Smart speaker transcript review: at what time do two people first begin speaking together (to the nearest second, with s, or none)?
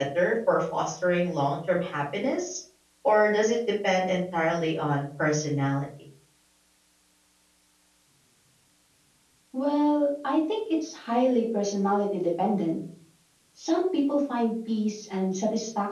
none